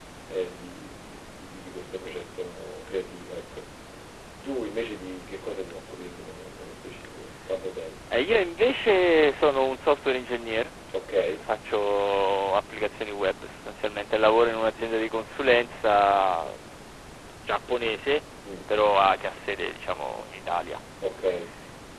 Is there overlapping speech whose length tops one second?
No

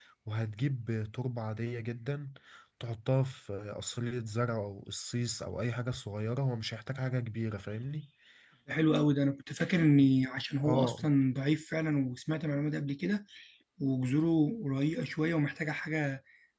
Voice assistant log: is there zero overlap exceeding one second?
Yes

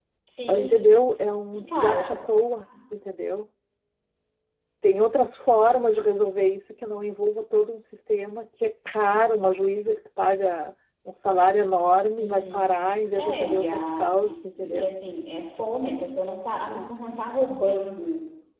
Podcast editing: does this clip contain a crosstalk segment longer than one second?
Yes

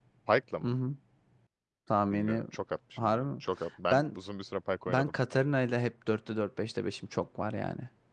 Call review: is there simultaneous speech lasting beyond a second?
No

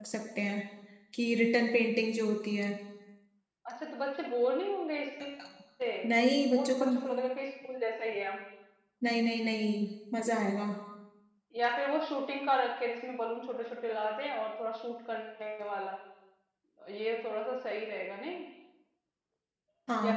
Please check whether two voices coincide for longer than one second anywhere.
No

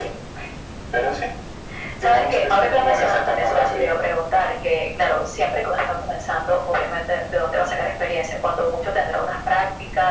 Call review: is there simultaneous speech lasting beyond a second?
Yes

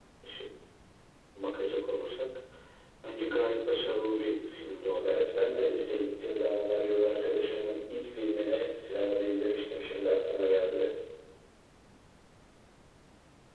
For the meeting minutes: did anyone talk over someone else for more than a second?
No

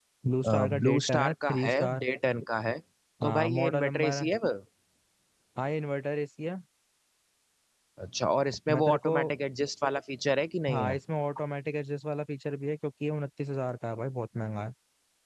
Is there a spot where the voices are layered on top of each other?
Yes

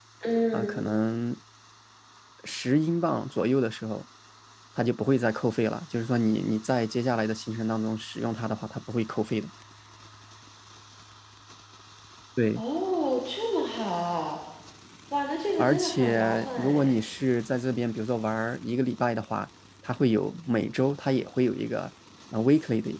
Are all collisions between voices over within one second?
No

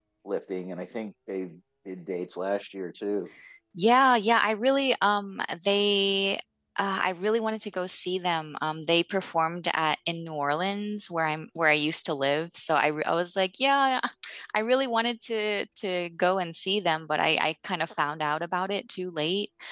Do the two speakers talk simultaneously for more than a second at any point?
No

